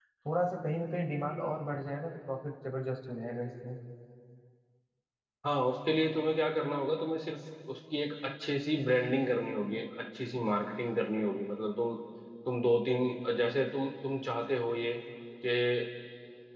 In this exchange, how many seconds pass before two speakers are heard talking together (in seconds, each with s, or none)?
none